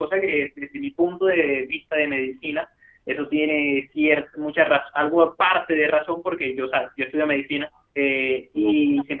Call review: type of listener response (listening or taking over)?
listening